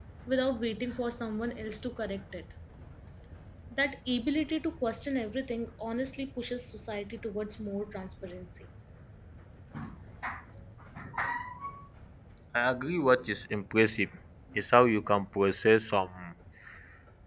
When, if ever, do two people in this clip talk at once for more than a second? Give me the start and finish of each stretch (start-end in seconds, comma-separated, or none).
none